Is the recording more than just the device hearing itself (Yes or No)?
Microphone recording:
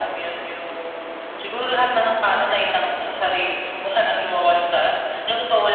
No